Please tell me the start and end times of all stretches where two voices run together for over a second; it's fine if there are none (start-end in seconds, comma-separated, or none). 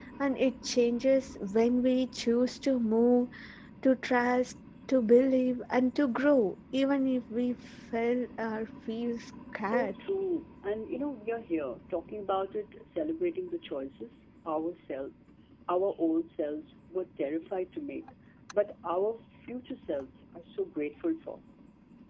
none